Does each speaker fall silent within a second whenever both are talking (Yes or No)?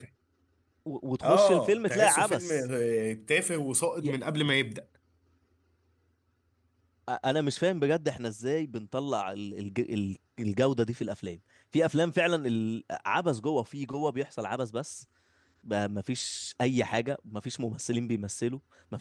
No